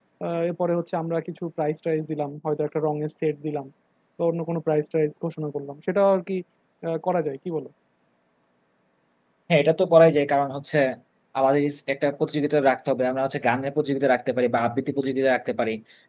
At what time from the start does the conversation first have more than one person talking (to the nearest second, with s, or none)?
none